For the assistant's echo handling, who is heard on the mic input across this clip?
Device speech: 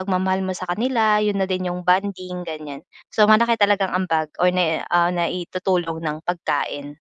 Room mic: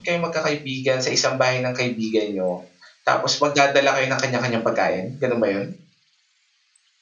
user only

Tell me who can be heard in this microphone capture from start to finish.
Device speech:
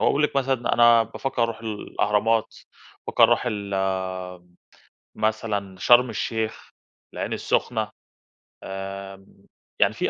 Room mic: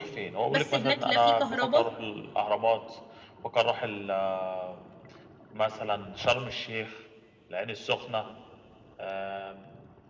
both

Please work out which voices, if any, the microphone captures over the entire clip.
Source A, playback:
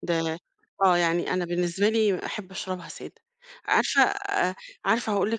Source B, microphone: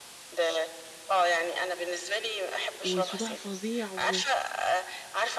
both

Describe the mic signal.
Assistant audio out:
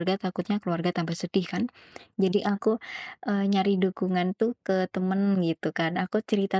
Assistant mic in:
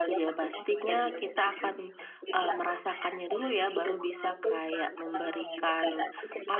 both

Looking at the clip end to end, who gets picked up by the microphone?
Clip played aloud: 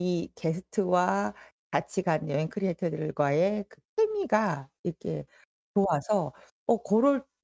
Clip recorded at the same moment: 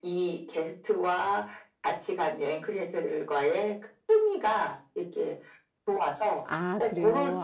both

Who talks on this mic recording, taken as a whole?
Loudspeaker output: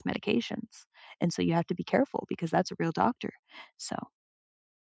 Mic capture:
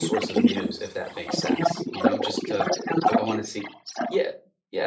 both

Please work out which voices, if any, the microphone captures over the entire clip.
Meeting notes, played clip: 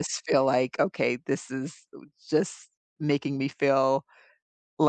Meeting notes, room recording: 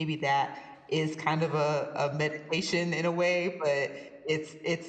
user only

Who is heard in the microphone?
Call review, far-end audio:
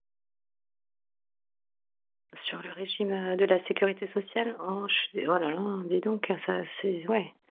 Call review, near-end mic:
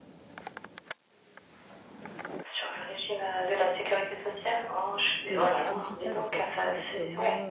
both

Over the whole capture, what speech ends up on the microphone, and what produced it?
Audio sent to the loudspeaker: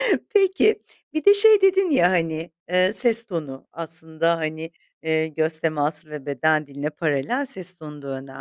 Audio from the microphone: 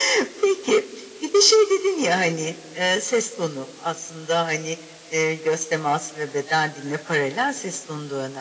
echo only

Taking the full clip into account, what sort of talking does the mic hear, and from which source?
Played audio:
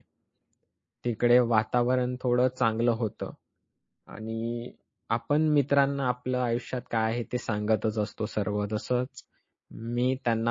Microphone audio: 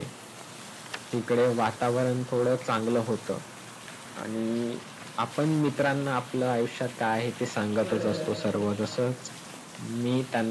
both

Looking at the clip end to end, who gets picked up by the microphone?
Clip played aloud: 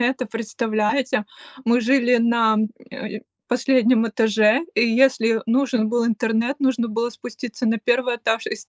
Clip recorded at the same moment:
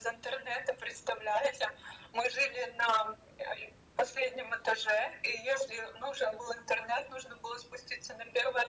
echo only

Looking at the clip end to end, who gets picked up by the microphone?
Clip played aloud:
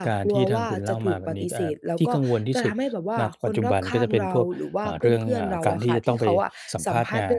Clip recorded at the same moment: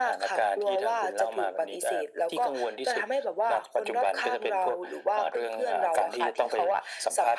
echo only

